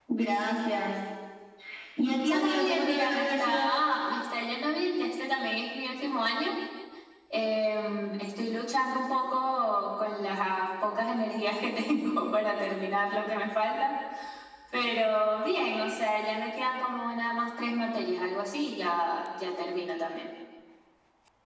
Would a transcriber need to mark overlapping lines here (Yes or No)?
Yes